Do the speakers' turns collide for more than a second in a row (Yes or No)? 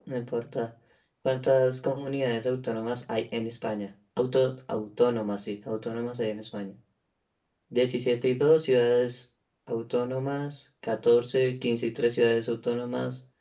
No